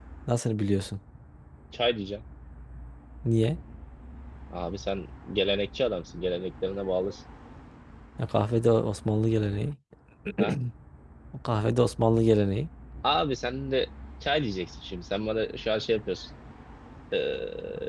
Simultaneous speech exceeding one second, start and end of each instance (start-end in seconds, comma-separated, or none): none